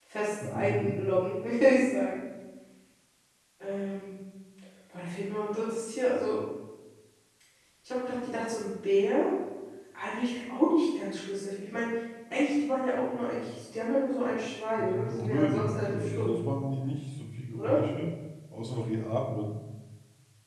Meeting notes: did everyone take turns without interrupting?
No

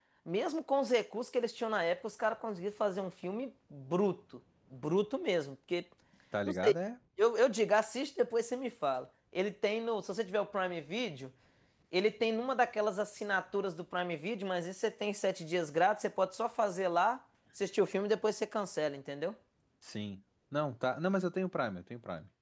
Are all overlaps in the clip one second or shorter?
Yes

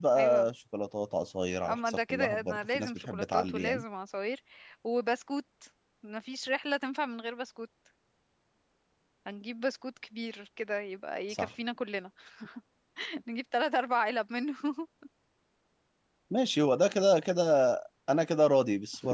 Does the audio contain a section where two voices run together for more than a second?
Yes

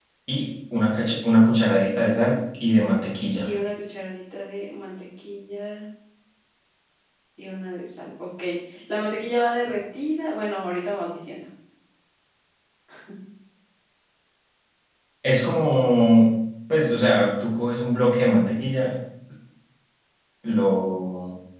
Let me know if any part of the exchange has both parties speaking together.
No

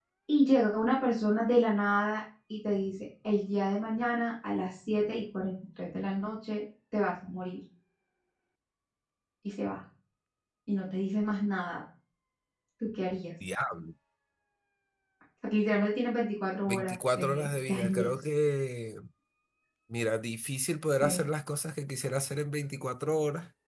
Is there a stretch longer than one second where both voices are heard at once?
Yes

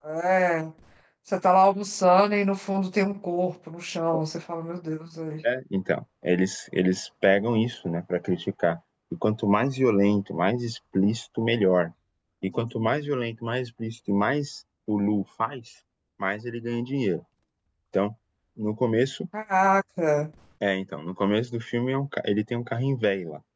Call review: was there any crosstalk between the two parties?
No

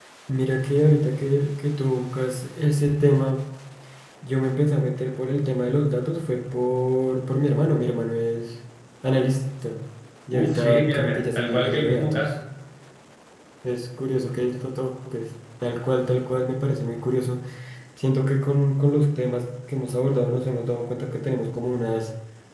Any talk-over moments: Yes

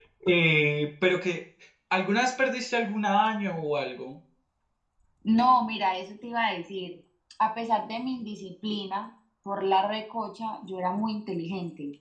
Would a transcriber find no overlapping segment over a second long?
Yes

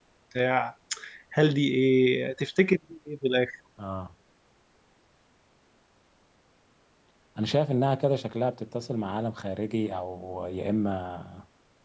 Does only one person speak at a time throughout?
Yes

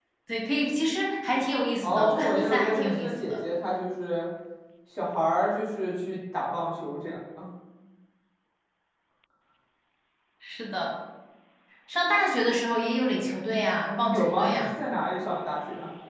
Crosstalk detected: Yes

